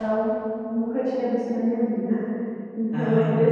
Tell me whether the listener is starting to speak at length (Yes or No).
No